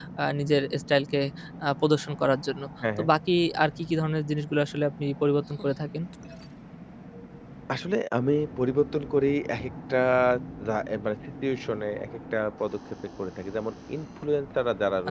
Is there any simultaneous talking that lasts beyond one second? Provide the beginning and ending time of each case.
none

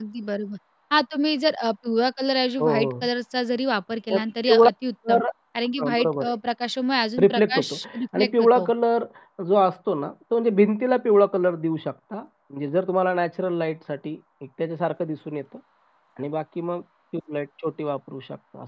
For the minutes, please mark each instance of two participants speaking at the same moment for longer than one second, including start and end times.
7.2-8.7

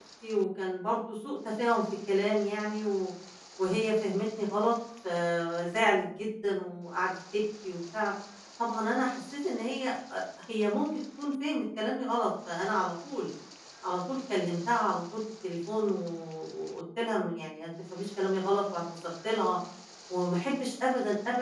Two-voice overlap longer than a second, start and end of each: none

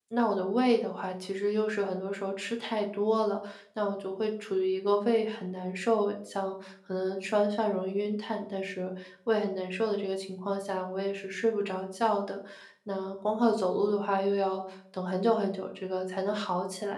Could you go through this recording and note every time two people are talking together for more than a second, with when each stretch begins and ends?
none

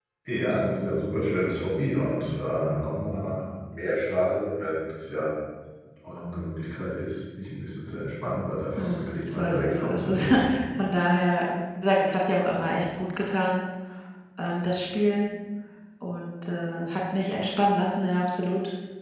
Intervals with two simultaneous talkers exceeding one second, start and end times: 8.8-10.3

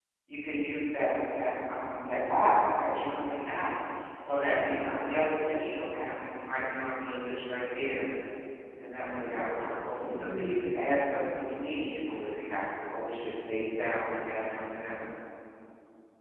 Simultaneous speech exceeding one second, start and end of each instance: 9.2-10.8

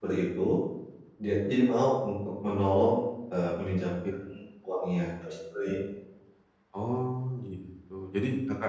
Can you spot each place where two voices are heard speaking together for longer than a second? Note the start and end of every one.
none

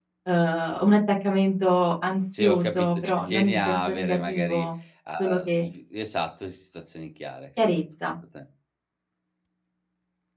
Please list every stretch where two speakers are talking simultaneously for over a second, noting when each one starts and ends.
2.4-4.7

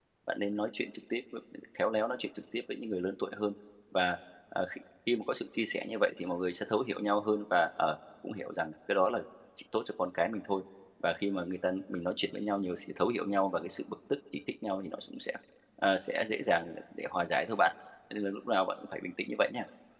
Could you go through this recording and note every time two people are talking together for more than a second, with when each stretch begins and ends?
none

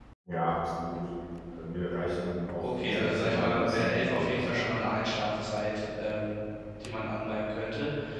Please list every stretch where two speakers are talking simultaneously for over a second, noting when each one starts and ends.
2.6-4.7

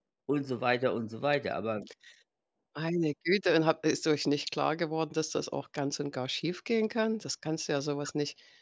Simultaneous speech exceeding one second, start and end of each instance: none

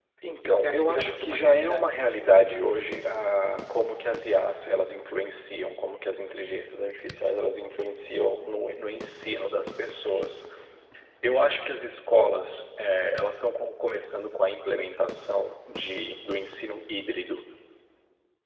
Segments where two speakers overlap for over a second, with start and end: 0.6-1.9

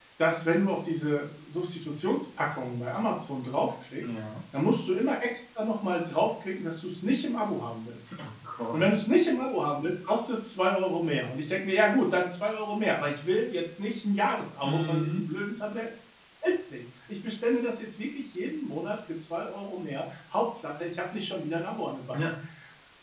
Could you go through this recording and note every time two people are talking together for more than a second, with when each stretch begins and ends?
none

